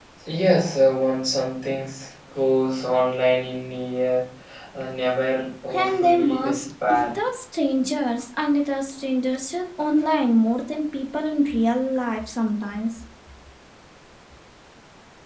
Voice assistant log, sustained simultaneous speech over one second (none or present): present